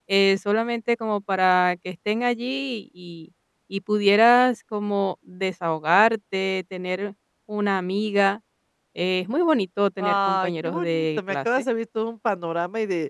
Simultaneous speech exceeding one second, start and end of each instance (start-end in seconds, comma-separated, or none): 10.0-11.7